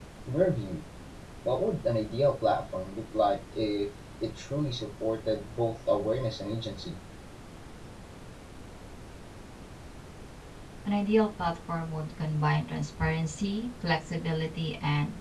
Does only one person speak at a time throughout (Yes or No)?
Yes